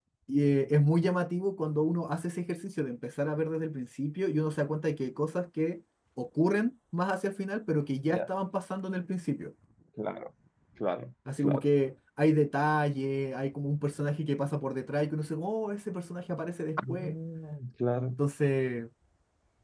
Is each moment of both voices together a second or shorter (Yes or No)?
Yes